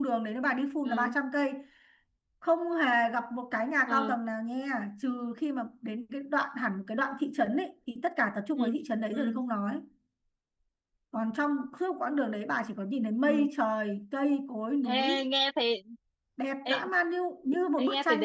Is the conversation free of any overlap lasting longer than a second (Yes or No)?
Yes